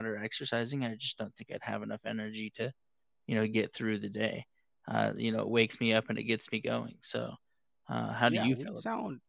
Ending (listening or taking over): taking over